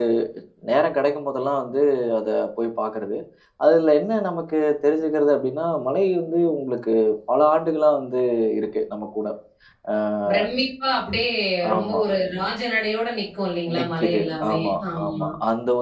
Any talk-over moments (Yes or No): Yes